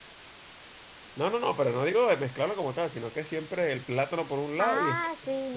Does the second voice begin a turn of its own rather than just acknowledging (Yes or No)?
Yes